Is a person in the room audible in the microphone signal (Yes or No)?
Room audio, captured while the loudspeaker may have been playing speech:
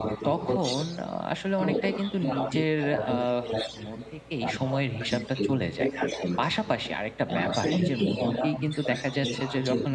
Yes